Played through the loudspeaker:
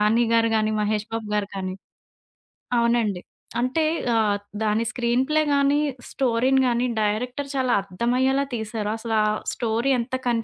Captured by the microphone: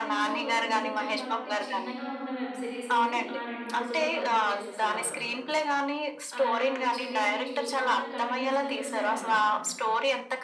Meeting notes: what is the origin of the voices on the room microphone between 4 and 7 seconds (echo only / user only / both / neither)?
both